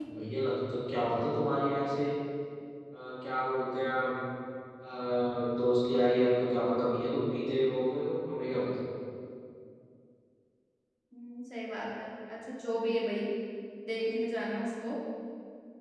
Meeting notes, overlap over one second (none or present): none